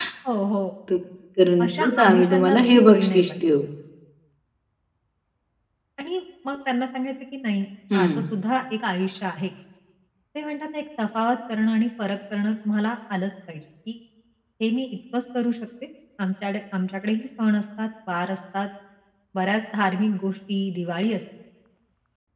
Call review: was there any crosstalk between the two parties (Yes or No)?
Yes